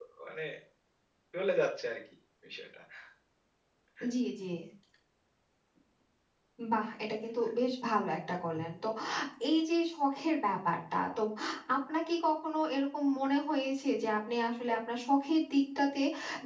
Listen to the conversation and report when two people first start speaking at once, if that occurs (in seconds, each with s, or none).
none